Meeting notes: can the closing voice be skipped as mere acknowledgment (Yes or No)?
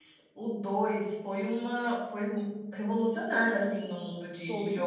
No